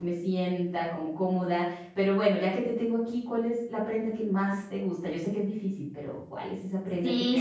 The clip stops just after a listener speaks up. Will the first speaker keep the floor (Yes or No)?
No